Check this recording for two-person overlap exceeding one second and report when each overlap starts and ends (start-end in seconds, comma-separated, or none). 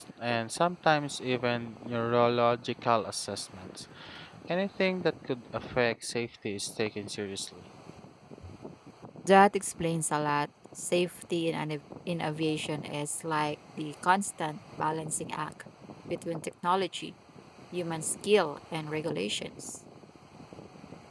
none